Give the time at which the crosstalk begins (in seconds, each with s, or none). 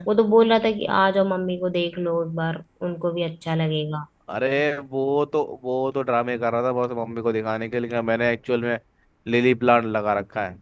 none